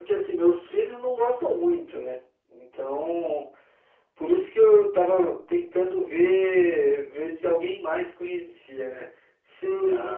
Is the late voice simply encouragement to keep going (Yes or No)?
Yes